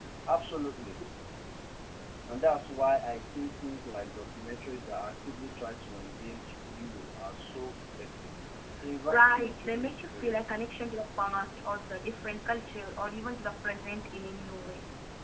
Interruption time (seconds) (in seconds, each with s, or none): 9.1 s